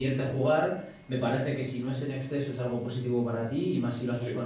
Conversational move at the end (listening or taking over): listening